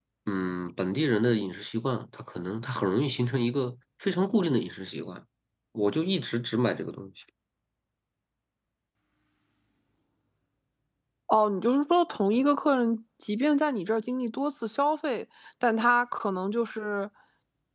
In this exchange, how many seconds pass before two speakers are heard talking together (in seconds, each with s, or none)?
none